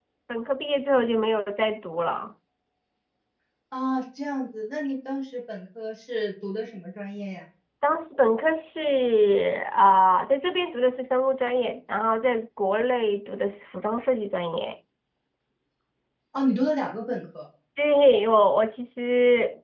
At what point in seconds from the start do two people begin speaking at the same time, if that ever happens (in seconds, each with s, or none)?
none